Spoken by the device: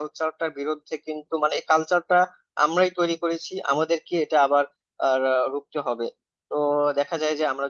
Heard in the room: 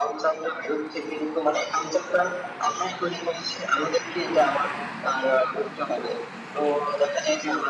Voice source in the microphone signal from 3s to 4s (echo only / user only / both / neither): echo only